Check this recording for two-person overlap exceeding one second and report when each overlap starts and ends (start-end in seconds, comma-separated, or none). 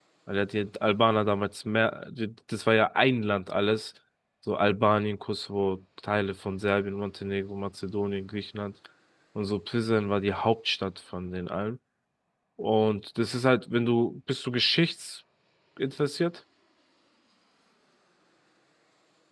none